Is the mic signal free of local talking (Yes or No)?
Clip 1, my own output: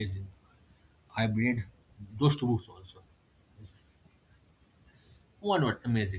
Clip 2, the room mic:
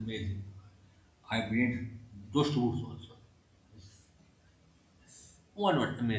Yes